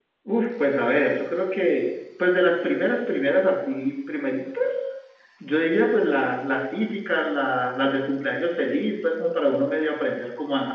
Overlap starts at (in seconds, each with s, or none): none